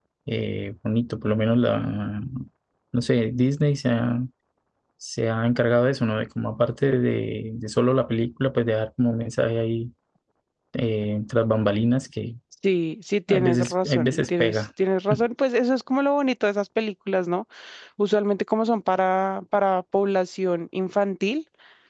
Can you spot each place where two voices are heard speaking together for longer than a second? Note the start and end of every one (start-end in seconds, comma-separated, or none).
13.3-14.6